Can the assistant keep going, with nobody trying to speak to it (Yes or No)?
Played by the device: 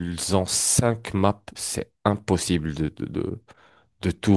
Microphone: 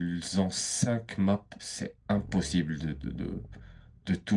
Yes